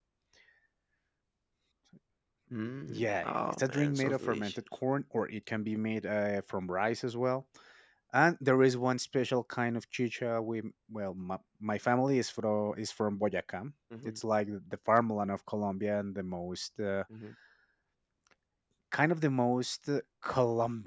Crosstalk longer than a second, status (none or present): present